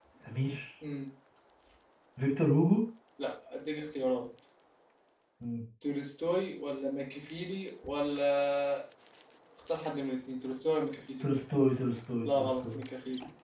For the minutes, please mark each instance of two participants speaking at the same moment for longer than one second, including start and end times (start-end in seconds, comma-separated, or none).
none